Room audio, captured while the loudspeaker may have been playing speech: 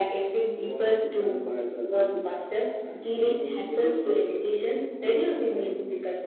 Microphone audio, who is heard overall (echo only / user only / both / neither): echo only